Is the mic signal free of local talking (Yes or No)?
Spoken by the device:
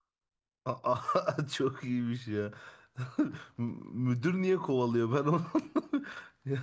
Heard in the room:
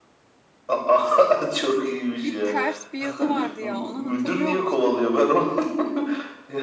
No